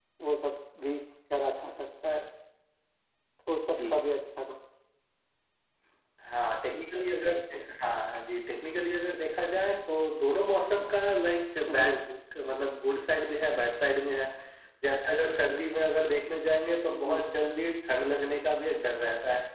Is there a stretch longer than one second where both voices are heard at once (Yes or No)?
No